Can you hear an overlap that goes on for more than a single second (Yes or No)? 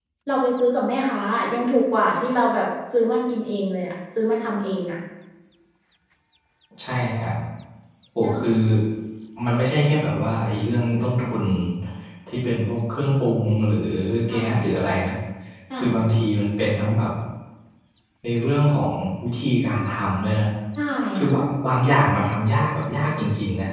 No